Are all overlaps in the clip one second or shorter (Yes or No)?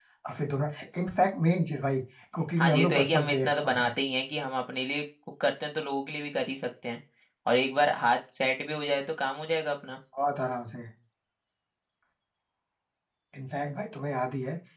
No